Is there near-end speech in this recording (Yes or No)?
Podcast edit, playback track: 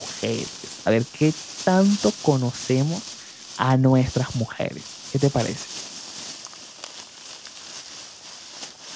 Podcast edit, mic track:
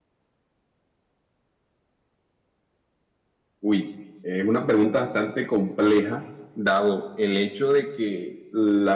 Yes